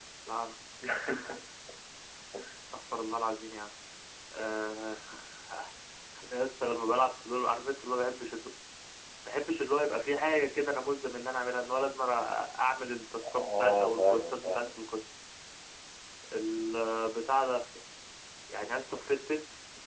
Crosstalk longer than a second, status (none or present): present